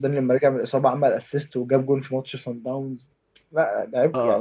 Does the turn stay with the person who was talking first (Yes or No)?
No